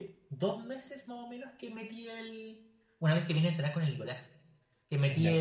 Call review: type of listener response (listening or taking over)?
listening